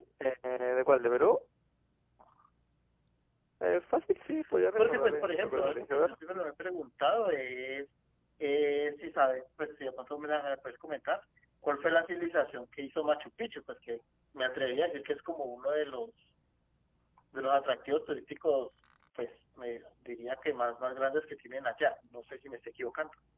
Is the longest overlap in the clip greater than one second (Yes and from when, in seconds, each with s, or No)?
Yes, from 4.8 s